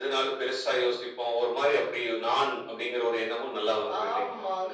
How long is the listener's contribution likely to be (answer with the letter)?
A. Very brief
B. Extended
B